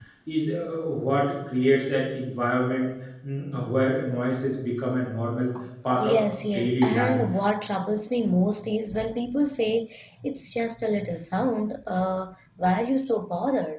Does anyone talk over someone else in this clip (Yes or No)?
Yes